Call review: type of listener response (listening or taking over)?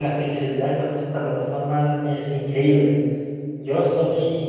listening